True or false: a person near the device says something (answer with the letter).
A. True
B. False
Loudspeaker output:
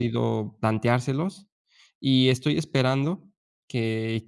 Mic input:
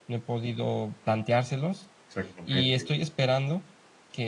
A